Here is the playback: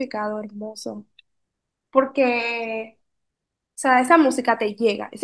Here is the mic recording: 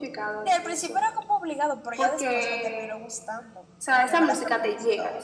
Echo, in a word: present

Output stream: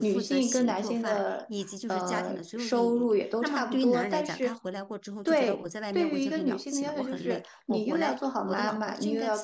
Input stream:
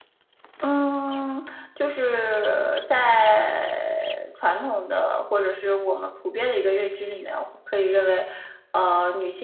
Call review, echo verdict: none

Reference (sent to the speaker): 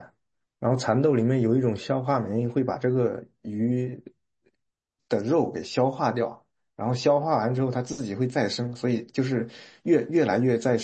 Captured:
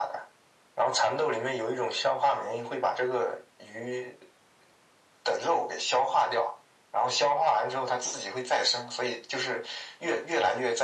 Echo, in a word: present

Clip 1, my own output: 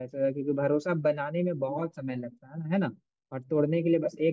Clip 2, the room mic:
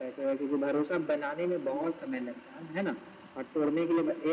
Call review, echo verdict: present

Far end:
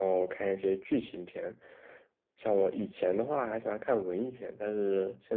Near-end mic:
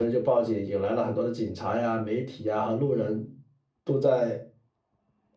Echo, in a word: none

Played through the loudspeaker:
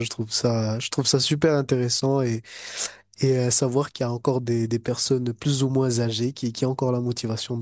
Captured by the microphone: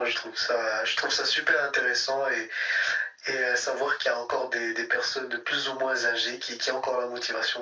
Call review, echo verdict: present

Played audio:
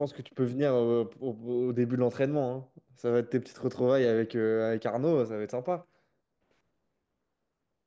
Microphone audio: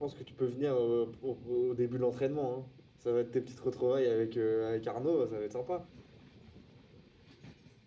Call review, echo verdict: present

